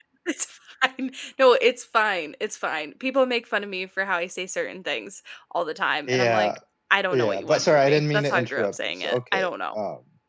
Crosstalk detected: Yes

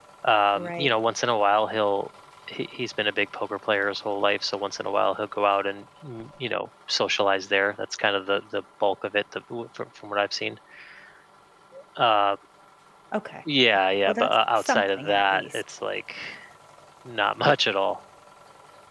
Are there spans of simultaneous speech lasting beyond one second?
Yes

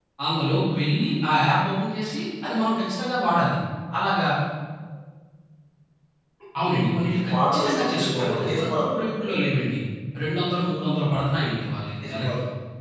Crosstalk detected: Yes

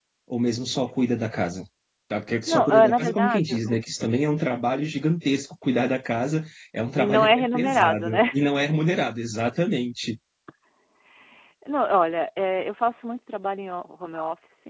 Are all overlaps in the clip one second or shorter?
No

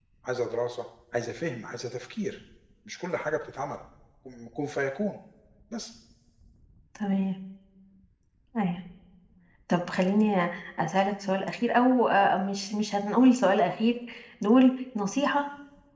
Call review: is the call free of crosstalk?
Yes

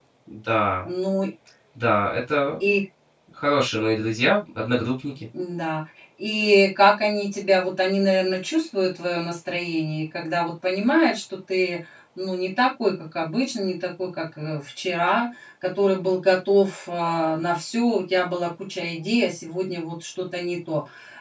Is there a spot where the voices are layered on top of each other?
No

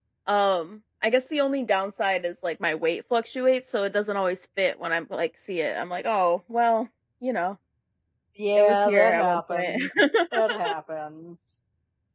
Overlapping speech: Yes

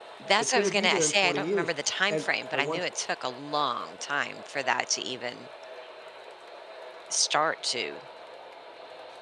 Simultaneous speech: Yes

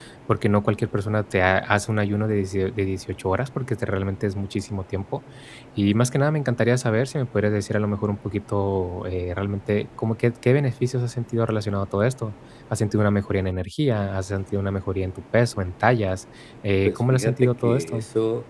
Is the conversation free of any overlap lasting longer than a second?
No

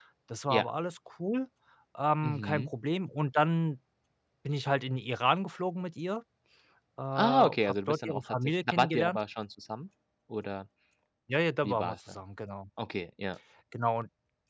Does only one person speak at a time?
No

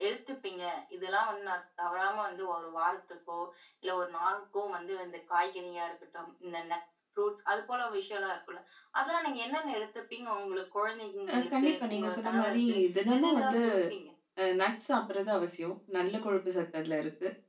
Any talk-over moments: Yes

